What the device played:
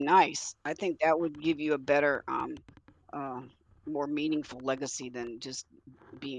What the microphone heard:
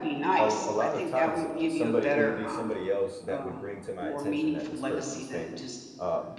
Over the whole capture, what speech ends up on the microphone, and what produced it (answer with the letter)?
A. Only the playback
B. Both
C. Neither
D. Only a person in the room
B